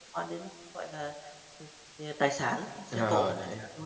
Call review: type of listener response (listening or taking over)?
taking over